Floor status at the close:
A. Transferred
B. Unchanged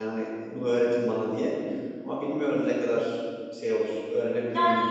A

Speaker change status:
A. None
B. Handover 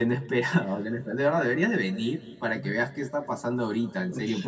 B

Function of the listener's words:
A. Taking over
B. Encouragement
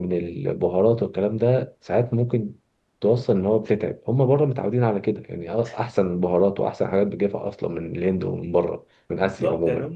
A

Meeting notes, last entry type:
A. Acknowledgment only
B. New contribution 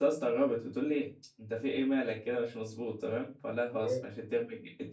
A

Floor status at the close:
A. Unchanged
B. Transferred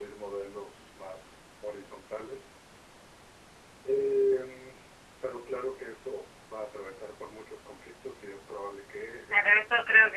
B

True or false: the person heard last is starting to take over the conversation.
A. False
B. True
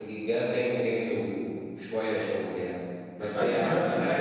B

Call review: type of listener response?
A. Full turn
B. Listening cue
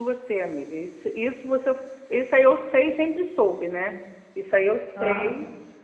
B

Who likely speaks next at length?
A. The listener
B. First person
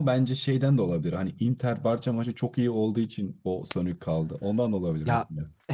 A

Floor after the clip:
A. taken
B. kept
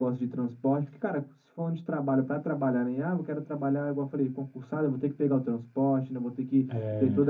B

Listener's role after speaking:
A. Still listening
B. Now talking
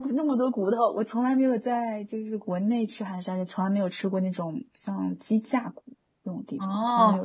B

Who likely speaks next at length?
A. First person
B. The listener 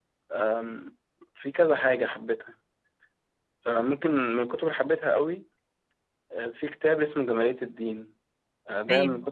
A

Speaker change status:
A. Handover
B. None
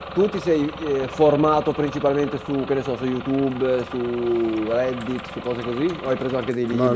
A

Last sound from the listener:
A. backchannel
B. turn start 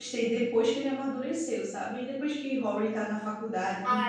B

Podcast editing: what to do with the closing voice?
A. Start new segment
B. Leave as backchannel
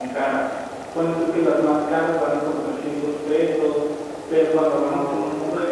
B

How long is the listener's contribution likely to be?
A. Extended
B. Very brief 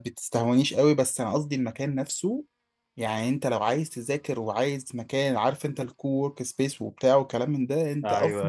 B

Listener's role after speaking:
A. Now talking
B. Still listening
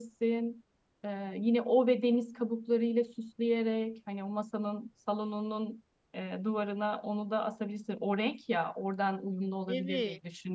A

